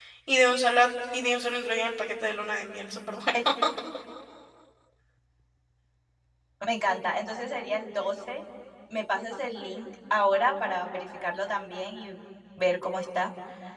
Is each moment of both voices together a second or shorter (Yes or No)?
Yes